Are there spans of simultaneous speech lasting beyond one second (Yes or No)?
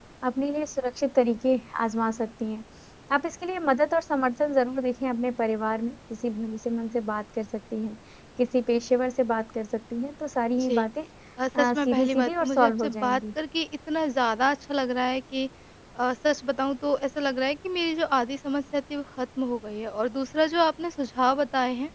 Yes